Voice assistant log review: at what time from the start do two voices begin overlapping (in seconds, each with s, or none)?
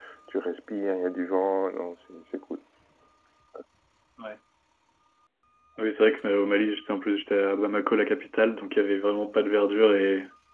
none